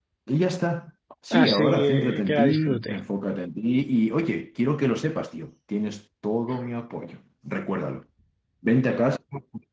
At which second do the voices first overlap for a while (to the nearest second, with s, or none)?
1 s